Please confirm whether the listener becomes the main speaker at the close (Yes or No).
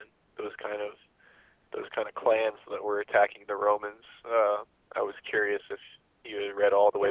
Yes